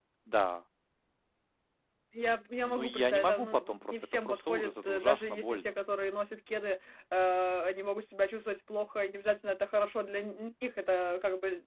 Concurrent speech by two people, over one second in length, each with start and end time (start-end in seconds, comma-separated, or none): 2.6-5.7